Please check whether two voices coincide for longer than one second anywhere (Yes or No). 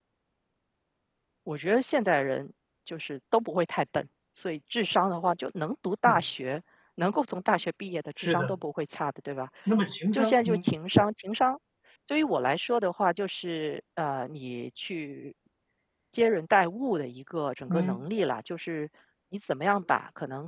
No